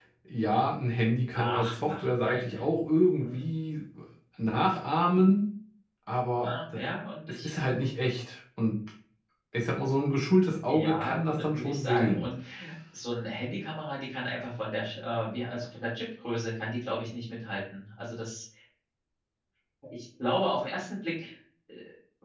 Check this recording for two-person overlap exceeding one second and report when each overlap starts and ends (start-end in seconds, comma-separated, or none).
1.2-2.6, 10.7-12.3